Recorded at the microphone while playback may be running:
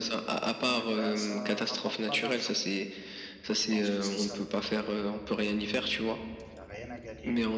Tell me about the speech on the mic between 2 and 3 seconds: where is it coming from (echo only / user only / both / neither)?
both